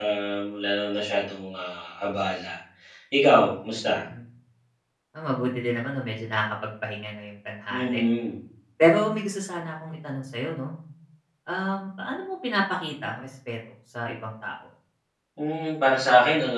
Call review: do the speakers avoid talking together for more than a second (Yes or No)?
Yes